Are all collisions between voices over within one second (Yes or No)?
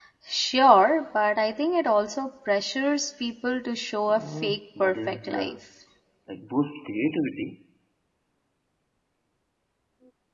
No